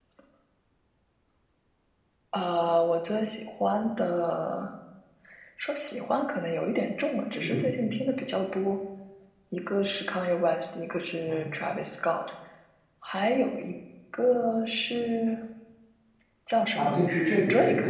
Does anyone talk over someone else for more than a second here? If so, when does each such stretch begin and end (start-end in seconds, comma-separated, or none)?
none